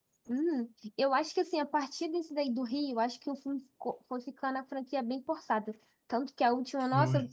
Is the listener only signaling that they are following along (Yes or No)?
Yes